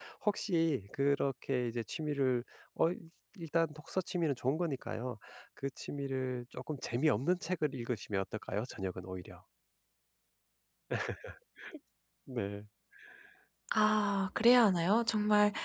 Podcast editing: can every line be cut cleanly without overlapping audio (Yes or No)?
Yes